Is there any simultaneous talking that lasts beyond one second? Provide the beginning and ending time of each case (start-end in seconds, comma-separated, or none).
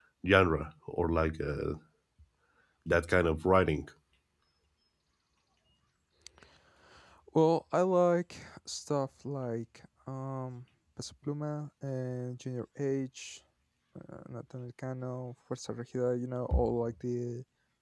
none